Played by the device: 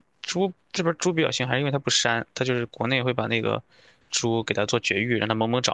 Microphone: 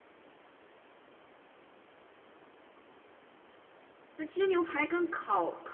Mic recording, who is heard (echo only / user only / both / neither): user only